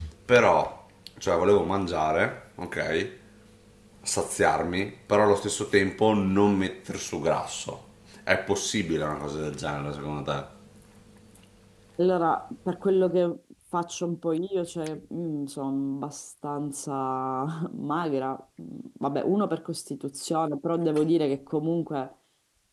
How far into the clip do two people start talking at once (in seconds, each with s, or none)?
none